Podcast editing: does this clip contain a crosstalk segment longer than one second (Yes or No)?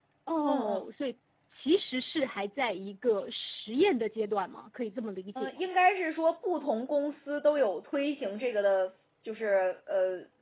No